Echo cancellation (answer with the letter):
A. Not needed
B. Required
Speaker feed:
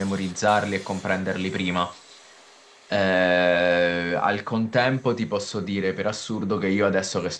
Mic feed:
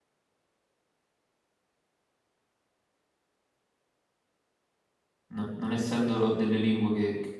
A